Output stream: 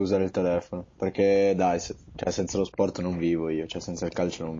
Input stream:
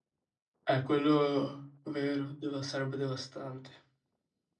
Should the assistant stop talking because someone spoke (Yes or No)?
Yes